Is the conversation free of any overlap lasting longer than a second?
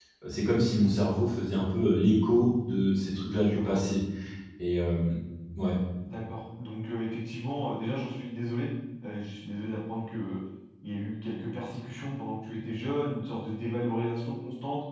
Yes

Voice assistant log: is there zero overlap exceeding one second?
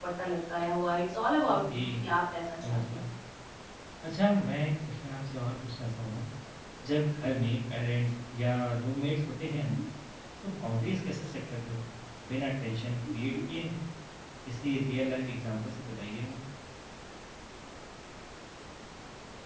Yes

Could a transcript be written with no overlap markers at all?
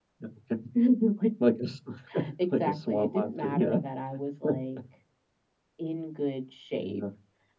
No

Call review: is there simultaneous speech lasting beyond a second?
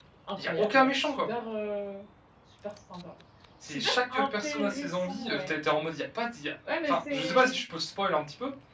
Yes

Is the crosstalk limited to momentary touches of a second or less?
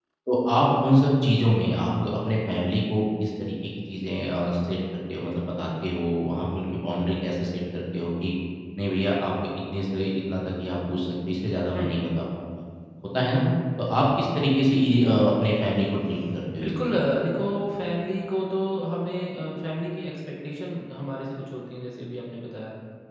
Yes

